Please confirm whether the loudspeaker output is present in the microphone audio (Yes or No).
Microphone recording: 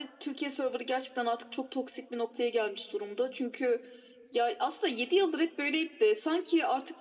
Yes